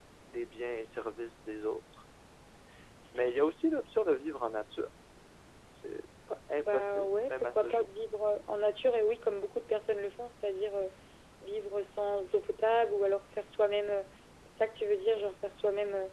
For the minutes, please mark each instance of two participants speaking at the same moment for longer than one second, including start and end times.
6.5-7.9

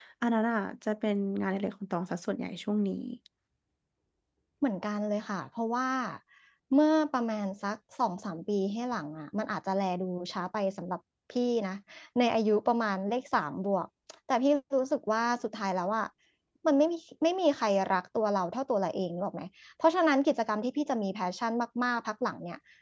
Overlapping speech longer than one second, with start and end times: none

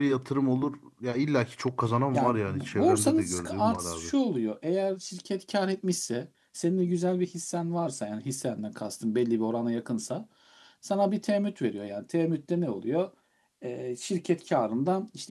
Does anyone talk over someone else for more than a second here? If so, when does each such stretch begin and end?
2.1-4.1

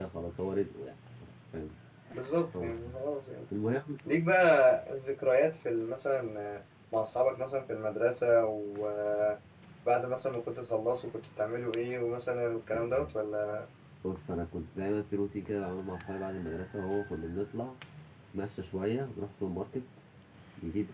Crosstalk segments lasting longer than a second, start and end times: none

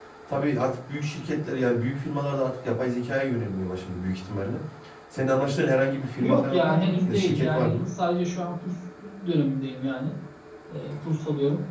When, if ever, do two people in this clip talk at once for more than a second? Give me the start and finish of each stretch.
6.2-7.9

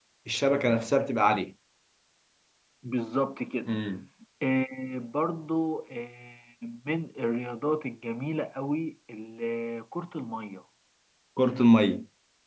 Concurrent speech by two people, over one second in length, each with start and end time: none

